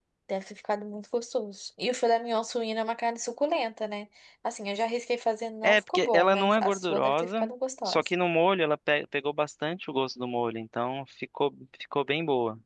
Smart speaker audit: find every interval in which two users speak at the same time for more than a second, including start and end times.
5.6-7.4

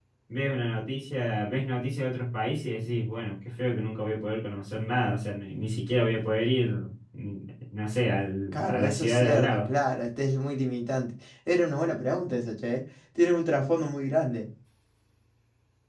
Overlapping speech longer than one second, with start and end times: 8.5-9.7

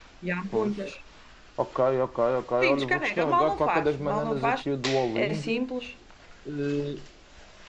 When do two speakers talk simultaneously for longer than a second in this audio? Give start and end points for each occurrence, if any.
2.6-4.7

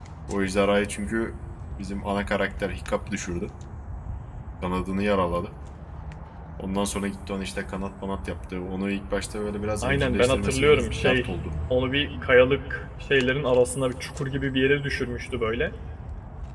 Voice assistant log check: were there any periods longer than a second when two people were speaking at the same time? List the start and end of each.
9.8-11.5

